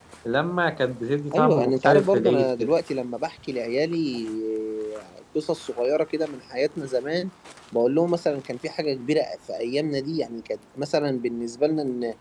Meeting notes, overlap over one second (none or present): present